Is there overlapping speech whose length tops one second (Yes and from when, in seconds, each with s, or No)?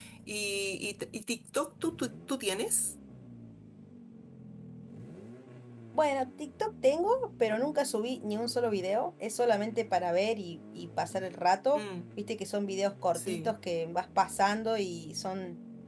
No